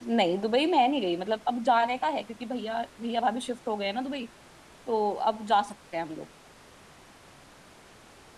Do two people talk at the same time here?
No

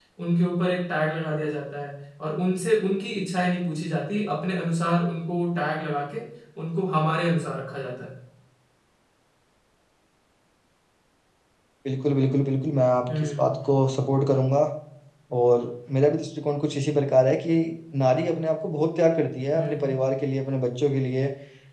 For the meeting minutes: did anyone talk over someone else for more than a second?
No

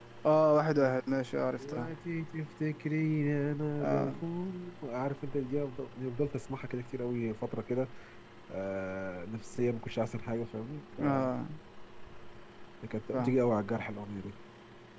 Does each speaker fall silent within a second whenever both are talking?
Yes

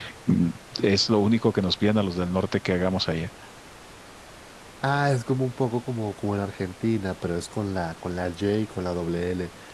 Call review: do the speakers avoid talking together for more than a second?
Yes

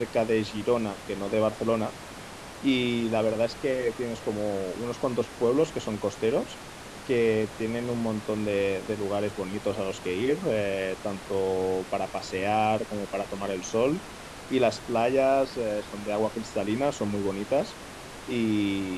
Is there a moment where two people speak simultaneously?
No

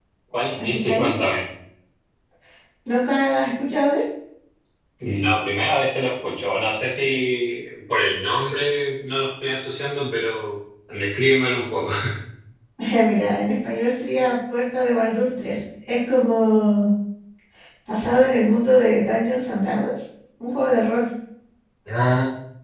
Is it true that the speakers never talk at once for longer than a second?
Yes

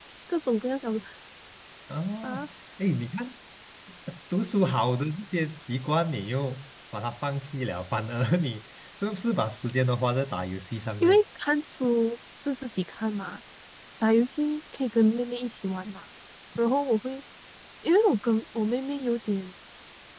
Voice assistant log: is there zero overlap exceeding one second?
Yes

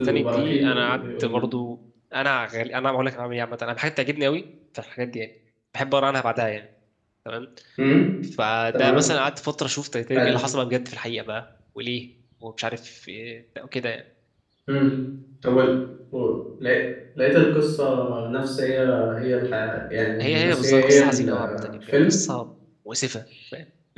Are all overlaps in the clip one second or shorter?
No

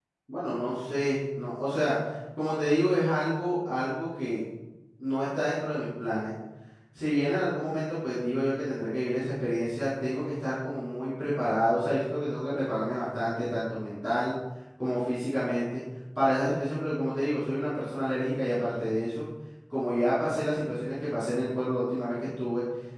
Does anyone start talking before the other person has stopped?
No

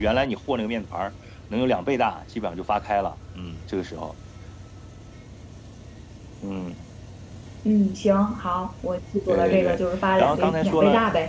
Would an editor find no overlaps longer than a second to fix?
No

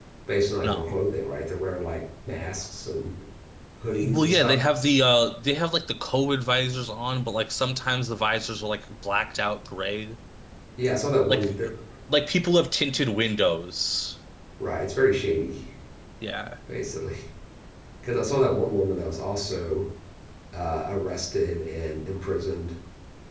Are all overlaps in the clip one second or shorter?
Yes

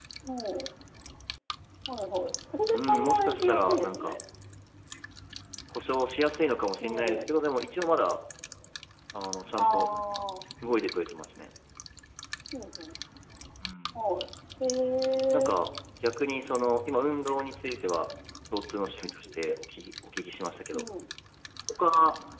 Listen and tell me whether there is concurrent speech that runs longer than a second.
Yes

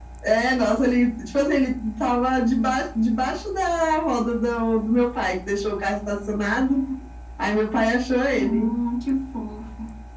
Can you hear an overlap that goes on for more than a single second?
No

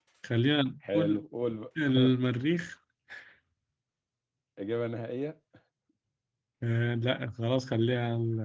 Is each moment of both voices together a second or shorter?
Yes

